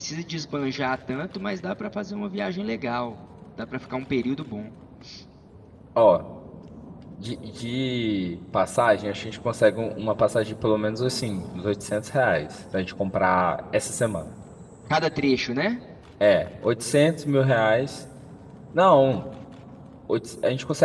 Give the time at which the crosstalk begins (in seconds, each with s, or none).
none